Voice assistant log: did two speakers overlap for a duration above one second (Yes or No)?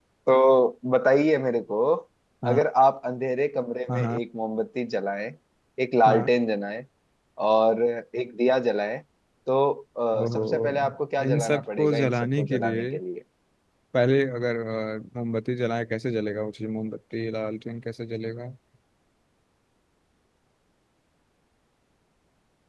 Yes